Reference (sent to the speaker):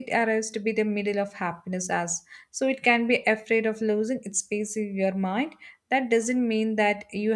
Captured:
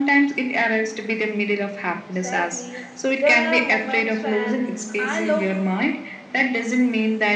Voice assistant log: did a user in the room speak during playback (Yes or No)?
Yes